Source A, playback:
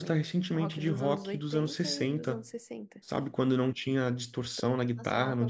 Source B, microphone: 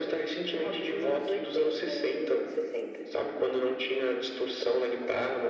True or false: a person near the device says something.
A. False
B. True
A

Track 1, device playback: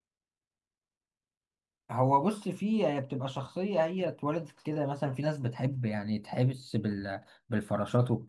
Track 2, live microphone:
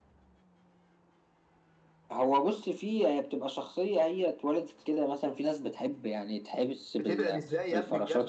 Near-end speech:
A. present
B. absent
A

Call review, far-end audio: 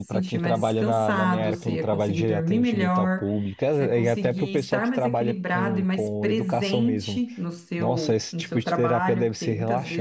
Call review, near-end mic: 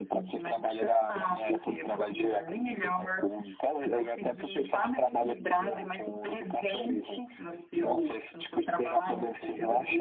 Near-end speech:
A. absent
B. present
A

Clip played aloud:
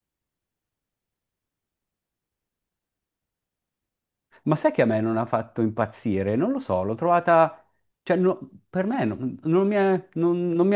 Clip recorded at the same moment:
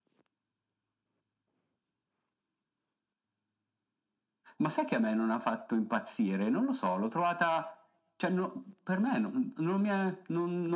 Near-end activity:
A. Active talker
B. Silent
B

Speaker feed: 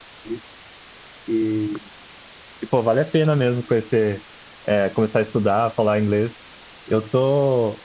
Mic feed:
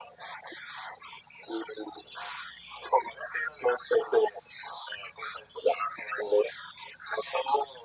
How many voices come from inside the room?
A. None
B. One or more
A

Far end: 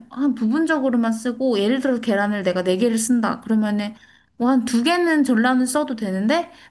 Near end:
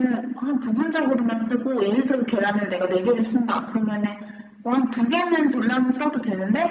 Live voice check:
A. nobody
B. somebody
A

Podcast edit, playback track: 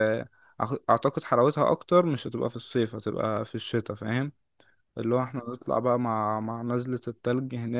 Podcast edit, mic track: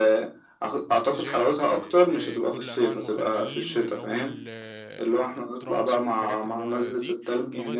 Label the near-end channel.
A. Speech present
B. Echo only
A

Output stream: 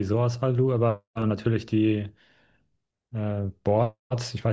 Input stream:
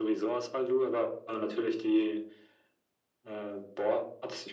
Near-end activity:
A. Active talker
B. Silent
B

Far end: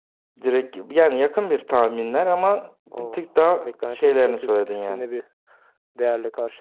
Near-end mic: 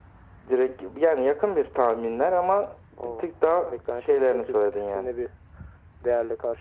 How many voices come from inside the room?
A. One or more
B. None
B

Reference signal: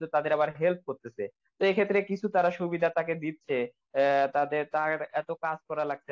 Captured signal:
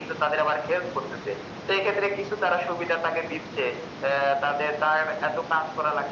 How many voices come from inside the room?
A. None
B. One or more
A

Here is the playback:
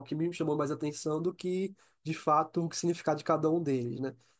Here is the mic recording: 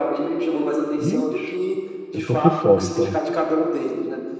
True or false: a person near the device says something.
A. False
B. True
B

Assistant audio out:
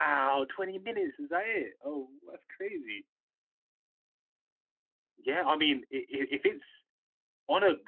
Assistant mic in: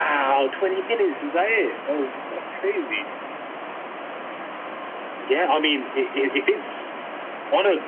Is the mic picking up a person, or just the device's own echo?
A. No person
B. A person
A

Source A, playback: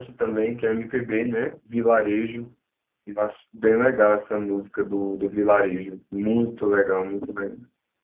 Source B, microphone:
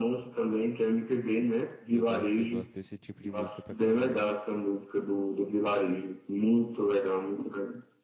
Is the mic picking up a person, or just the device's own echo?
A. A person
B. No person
A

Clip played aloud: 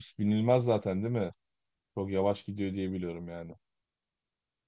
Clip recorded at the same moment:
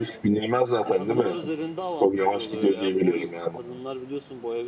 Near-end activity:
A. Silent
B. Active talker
B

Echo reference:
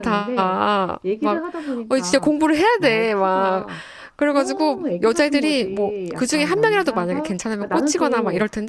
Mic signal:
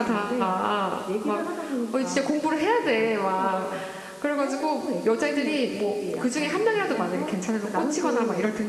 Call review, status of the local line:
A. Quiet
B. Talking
A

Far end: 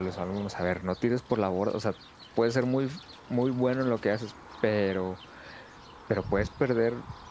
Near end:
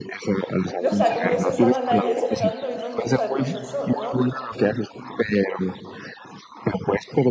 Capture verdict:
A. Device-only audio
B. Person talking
B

